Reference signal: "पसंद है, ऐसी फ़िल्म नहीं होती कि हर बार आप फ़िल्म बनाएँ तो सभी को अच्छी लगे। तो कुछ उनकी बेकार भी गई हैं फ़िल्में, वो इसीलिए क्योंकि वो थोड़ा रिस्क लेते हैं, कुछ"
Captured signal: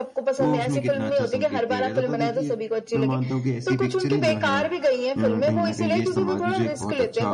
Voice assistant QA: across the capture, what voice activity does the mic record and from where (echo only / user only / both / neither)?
both